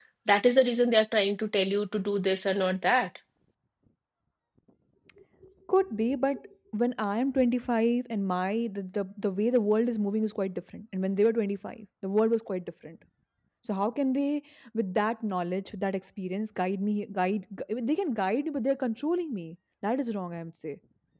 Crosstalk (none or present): none